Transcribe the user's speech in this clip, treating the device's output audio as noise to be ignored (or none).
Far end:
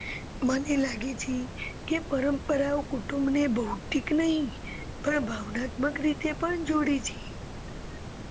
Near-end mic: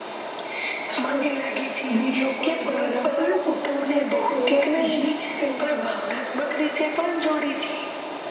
હા વિડીયો કોલ દ્વારા પણ કુટુંબ સાથે તહેવાર ઉજવી શકાય છે.